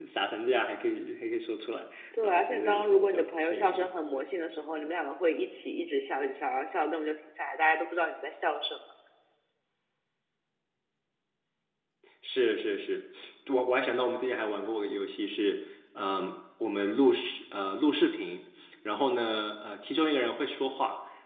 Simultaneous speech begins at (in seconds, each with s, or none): 2.1 s